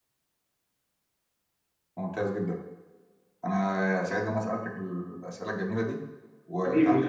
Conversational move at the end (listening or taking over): taking over